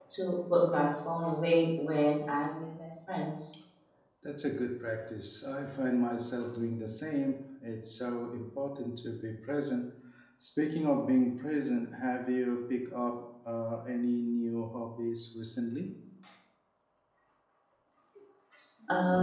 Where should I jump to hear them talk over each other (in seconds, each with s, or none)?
none